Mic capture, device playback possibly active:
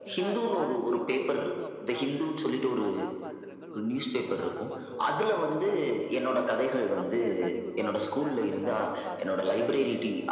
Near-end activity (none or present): present